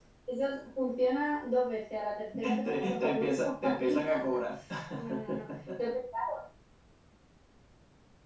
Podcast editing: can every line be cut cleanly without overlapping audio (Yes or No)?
No